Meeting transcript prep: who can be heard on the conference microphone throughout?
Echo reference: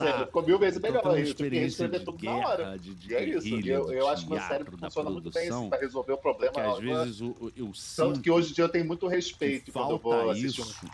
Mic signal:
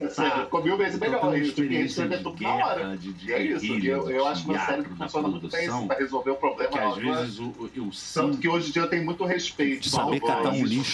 both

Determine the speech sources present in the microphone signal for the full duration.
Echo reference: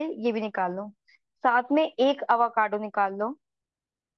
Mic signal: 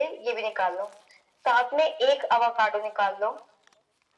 echo only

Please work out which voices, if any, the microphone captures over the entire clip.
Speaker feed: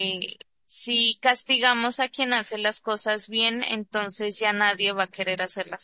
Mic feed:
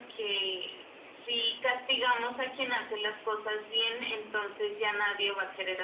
echo only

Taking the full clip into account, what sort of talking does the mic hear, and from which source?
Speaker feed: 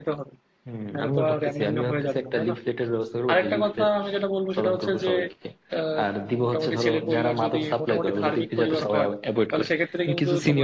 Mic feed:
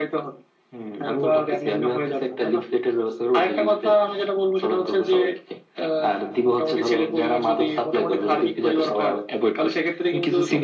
echo only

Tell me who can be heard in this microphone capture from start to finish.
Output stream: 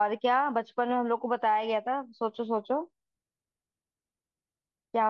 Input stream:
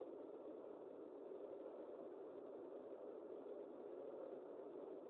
neither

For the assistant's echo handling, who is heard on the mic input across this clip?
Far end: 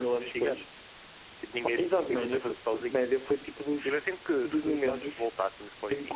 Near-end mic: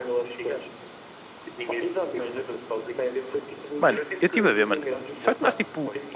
both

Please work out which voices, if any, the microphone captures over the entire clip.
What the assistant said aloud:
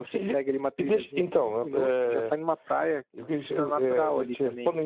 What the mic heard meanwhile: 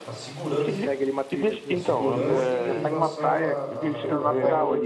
both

